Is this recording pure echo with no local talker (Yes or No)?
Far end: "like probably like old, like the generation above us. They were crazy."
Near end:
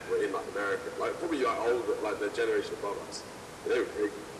Yes